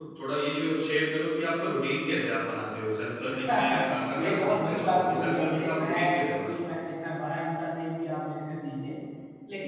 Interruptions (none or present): present